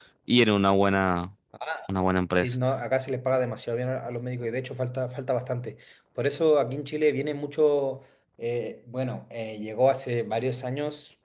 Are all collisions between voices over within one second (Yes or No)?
Yes